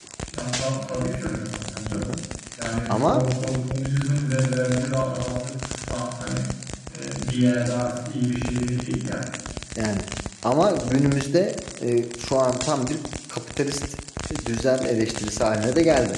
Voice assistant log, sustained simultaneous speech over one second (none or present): none